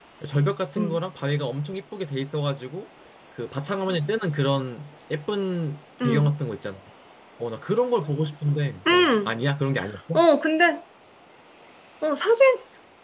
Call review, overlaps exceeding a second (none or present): none